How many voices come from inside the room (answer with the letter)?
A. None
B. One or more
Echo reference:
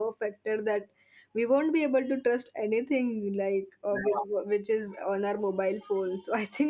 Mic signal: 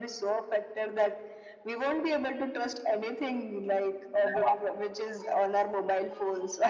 A